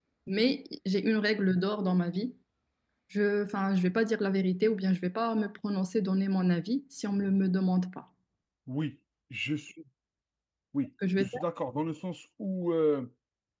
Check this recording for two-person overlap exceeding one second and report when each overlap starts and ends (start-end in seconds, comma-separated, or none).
none